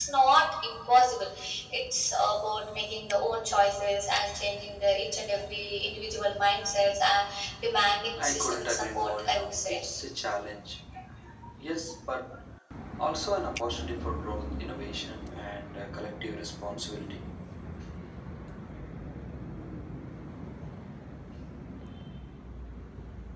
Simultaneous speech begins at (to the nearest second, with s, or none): 8 s